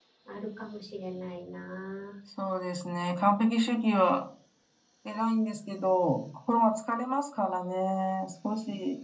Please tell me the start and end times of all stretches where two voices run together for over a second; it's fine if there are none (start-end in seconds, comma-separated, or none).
none